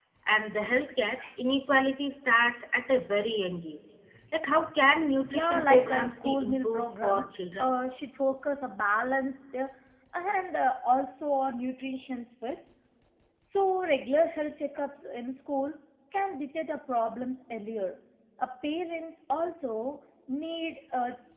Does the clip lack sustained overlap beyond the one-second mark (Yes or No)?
No